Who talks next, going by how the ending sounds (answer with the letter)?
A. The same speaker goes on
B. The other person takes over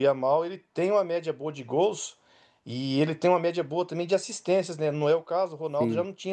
A